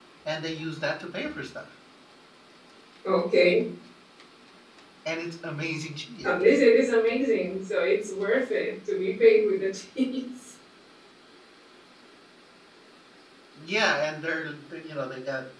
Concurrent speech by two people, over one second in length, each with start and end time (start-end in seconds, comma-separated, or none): none